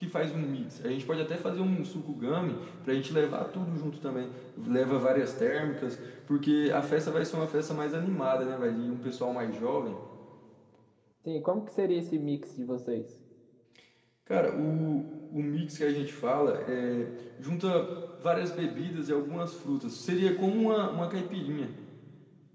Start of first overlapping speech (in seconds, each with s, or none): none